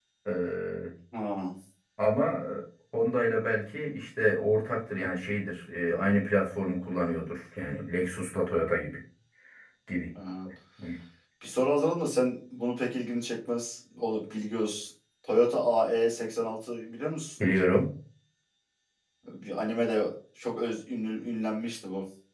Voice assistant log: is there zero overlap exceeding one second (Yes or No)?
Yes